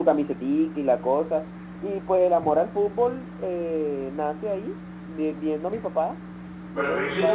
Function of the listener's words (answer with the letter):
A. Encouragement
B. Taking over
B